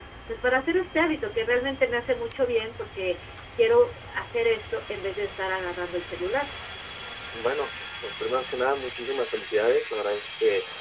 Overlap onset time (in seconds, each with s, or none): none